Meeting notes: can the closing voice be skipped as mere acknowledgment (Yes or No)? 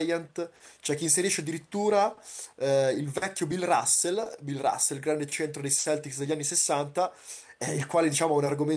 Yes